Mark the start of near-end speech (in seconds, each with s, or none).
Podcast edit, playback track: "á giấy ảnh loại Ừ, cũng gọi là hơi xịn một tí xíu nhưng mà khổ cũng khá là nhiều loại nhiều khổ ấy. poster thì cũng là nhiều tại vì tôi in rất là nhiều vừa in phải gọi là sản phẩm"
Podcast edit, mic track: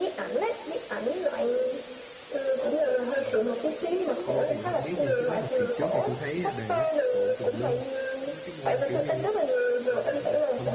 3.2 s